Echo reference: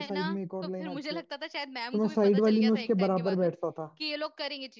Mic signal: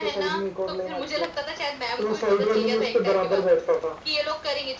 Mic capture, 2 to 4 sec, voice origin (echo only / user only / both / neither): echo only